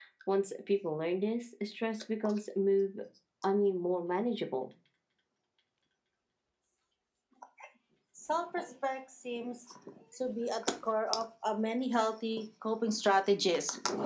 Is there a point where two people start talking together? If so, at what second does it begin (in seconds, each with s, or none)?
none